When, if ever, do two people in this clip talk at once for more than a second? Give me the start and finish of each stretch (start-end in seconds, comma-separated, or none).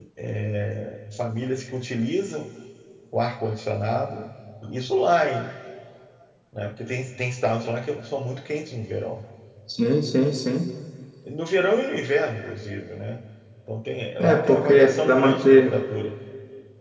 14.3-15.6